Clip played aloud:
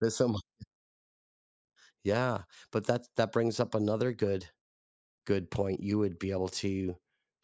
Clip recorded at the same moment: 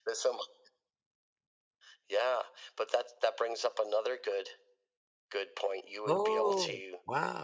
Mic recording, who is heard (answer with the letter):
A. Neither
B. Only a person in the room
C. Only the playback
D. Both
D